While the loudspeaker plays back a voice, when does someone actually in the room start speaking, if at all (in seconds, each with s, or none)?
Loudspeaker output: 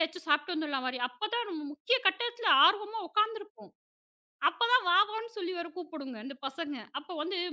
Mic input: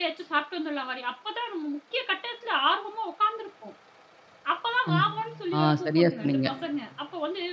4.9 s